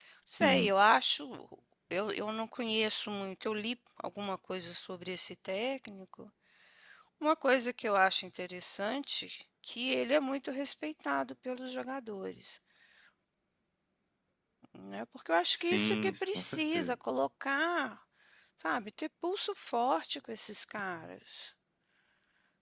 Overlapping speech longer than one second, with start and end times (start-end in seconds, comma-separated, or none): 15.6-16.9